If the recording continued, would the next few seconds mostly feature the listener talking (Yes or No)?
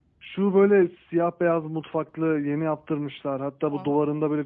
No